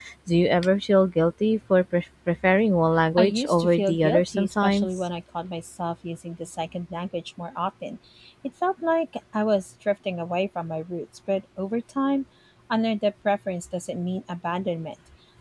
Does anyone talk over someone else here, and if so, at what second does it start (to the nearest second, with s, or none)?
3 s